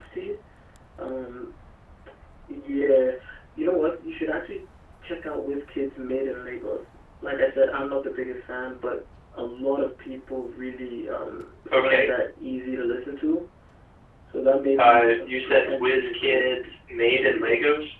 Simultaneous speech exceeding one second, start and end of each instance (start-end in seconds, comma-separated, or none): 14.8-16.4